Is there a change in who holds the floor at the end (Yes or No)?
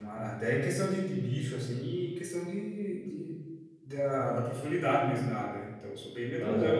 Yes